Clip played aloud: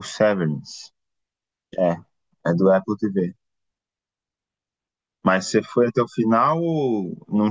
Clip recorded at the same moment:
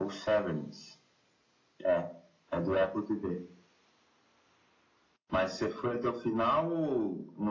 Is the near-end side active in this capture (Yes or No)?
No